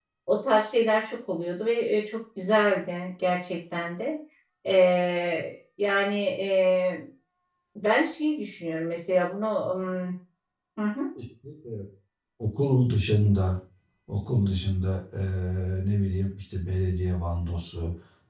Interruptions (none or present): none